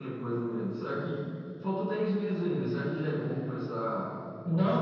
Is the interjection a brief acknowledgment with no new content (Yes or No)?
No